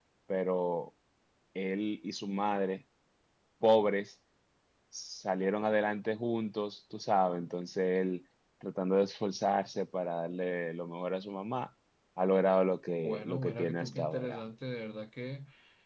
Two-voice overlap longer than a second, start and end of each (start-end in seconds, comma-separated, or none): 13.0-14.4